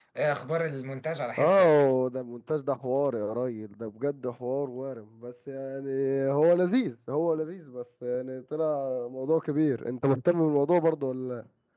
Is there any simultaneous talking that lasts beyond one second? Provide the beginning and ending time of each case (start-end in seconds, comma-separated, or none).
none